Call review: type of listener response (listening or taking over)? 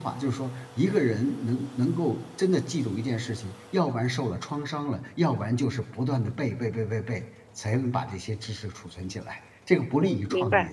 taking over